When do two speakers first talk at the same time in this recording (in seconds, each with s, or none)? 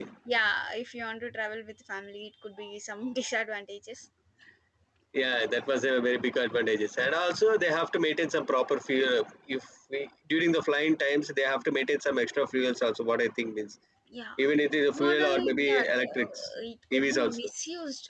14.9 s